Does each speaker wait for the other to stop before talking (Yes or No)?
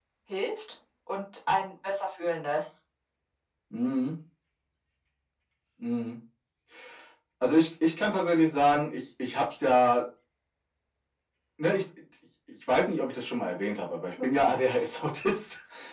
Yes